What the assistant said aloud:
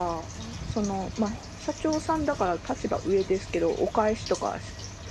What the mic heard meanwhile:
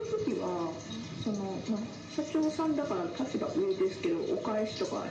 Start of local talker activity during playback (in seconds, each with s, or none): none